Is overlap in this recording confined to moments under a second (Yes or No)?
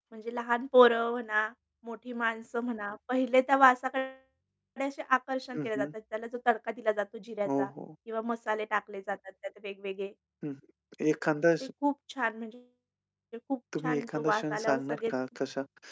No